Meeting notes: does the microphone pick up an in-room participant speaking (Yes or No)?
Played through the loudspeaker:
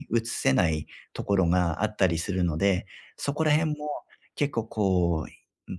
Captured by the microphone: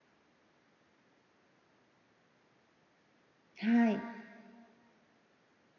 Yes